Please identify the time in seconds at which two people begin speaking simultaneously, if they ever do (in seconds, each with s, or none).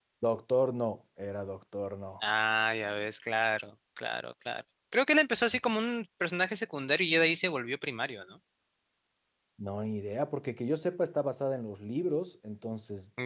none